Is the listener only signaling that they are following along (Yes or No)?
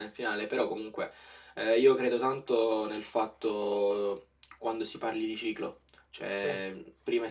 Yes